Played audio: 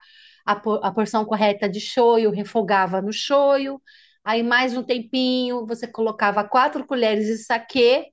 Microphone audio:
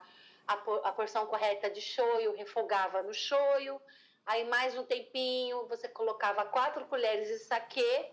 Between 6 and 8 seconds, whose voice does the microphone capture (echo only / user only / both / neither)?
echo only